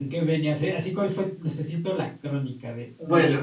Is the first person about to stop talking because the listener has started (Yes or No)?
No